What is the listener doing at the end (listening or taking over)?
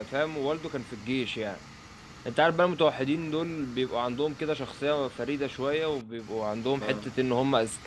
listening